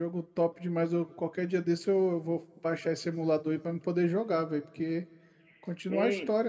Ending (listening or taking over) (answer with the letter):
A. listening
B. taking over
B